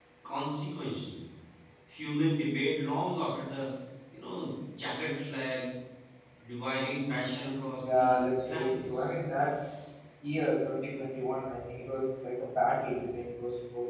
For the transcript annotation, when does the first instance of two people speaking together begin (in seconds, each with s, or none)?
7.8 s